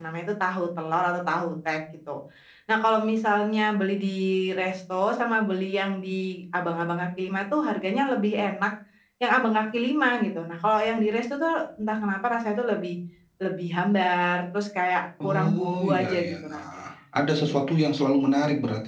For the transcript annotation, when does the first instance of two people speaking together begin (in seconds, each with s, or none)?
15.2 s